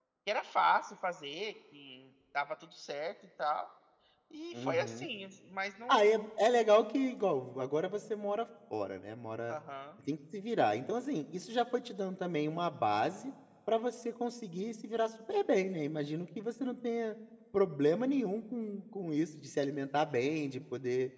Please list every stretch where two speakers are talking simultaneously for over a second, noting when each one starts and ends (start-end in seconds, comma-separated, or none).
none